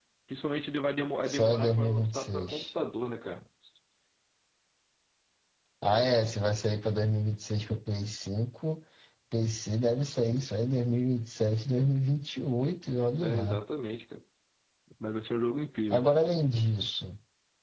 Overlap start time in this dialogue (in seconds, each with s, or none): 1.3 s